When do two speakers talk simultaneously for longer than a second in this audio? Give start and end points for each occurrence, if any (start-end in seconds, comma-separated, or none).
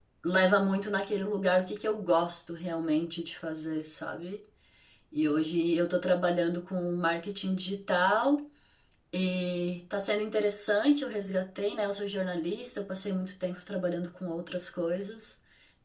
none